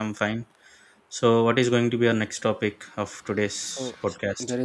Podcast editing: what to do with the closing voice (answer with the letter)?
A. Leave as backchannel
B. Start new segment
B